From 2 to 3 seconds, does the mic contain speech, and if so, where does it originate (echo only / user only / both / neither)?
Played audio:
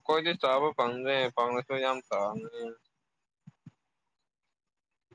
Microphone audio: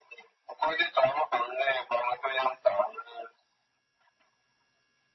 echo only